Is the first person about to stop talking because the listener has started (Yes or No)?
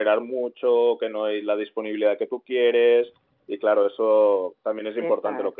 No